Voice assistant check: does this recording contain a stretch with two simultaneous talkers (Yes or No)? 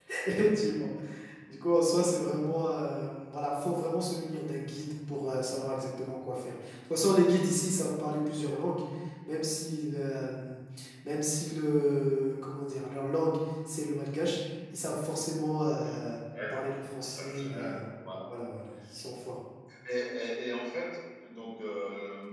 Yes